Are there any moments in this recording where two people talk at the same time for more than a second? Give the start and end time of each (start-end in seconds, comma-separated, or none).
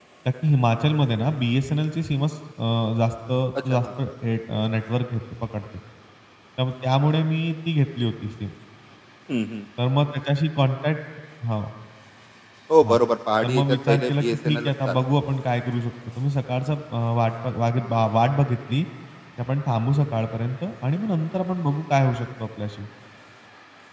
13.4-15.0